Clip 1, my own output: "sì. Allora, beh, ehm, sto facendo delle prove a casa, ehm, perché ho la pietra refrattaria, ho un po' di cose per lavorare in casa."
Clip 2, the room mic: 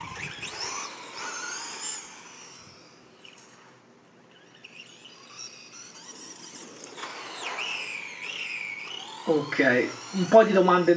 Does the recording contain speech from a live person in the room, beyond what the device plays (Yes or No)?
Yes